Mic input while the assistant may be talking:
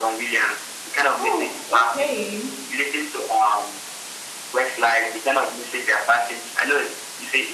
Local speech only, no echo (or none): Oh, okay.